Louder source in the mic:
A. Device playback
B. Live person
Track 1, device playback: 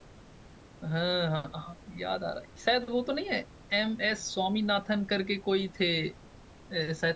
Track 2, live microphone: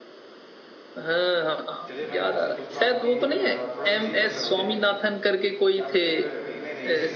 A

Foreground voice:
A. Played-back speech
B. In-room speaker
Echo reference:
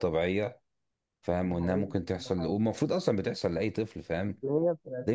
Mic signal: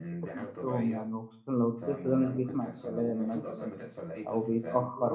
B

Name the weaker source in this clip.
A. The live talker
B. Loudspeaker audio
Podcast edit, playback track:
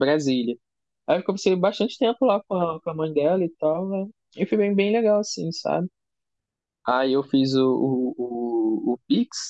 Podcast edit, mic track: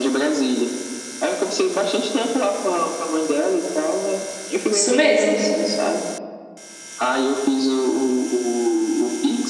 B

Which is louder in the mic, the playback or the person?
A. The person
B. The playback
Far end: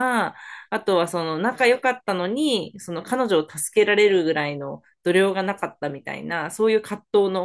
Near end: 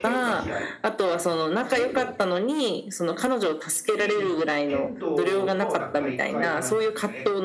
B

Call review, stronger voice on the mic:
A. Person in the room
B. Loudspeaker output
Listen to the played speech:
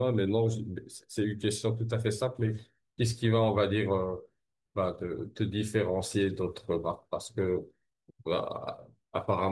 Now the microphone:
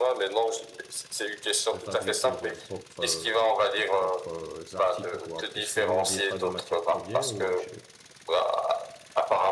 B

